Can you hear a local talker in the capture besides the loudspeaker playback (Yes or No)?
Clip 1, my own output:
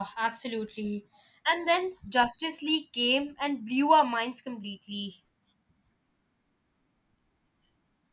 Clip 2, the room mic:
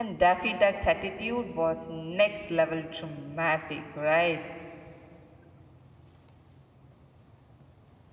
Yes